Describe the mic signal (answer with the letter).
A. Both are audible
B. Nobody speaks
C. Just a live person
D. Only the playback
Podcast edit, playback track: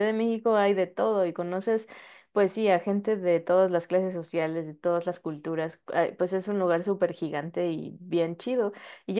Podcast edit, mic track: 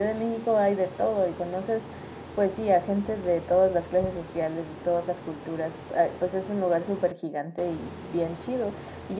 D